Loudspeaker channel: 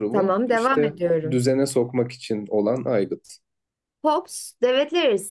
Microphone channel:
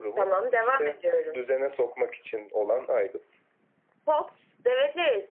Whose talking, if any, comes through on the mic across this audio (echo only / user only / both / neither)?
echo only